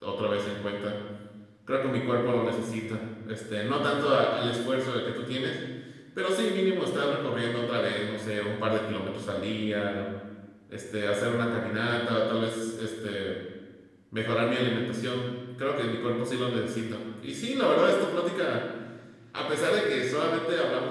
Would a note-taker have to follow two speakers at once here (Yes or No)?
No